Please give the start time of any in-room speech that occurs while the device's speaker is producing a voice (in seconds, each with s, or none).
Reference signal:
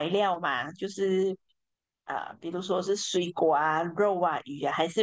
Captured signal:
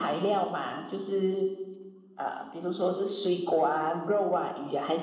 none